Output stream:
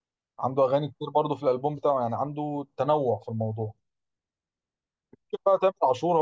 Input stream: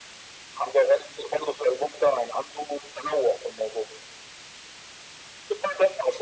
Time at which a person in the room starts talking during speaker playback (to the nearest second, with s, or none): none